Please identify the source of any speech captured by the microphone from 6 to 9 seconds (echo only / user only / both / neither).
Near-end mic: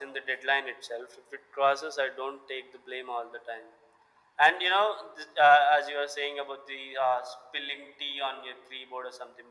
echo only